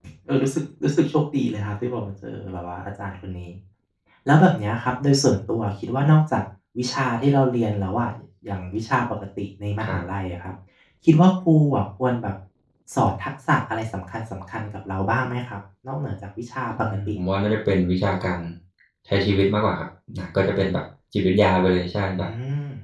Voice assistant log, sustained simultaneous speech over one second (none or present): none